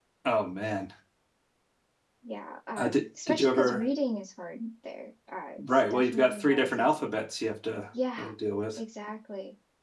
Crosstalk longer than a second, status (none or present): present